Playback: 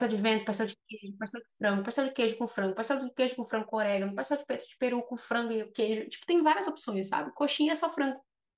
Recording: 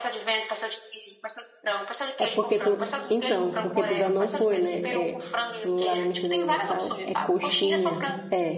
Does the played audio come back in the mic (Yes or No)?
Yes